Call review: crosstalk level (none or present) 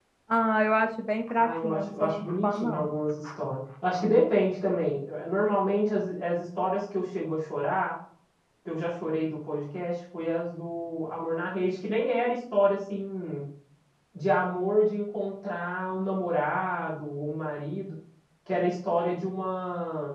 present